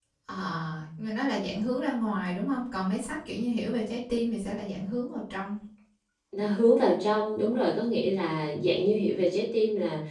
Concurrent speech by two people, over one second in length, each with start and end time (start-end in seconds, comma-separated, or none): none